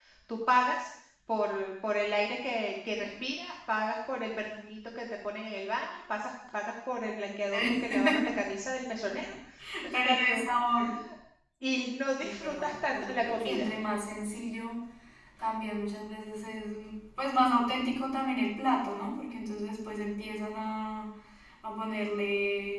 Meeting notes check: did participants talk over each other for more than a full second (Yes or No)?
Yes